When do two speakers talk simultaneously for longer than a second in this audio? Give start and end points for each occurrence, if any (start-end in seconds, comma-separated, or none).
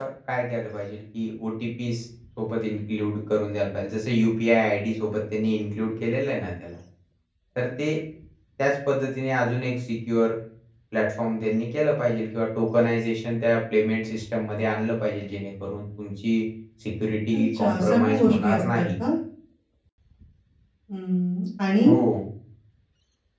17.5-18.8